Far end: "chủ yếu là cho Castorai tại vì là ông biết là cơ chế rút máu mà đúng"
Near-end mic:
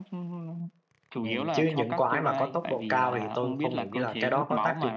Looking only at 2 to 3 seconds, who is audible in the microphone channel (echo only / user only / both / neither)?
both